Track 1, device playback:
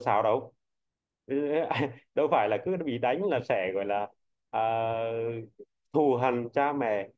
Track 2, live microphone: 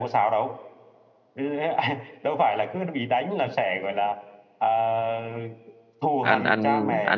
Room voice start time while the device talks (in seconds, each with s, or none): 6.2 s